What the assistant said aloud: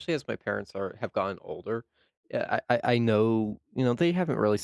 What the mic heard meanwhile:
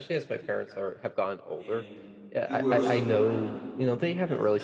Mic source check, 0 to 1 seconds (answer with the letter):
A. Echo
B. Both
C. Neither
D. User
A